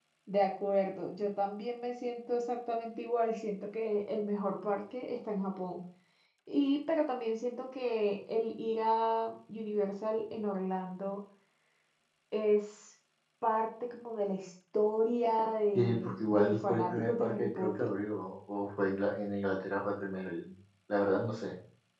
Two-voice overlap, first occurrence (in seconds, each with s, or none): 15.7 s